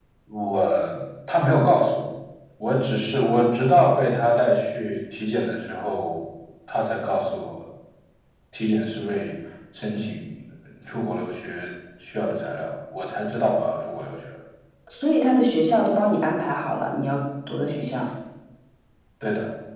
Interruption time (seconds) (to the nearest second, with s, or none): none